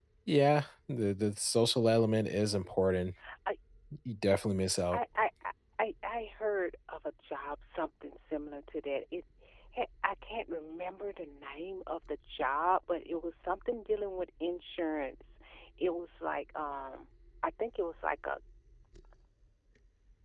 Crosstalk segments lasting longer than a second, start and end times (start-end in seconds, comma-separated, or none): none